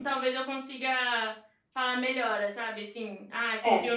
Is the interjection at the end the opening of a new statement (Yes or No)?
No